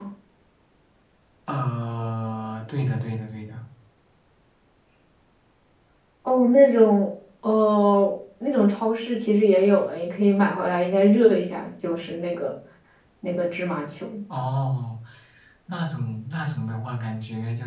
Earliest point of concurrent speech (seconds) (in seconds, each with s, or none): none